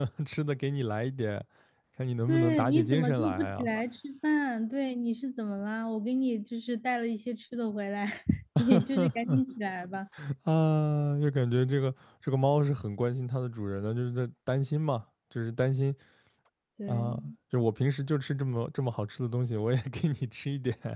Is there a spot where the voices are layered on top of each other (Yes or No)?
Yes